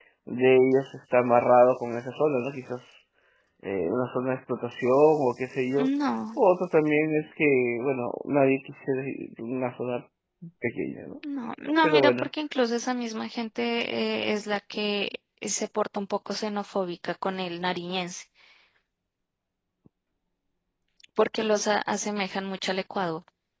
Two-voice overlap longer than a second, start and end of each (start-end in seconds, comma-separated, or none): none